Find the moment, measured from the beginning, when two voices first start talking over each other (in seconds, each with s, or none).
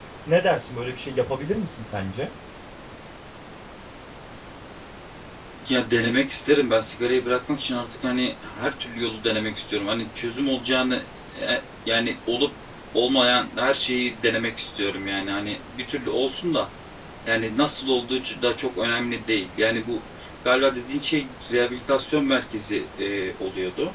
none